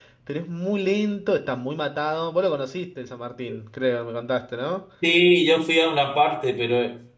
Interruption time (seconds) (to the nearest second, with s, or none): none